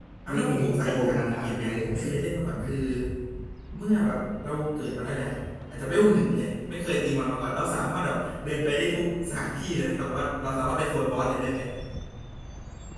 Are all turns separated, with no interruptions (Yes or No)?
No